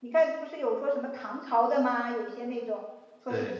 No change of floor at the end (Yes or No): Yes